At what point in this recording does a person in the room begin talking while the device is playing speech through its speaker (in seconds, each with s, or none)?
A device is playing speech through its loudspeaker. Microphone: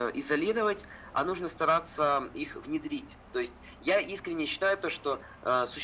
none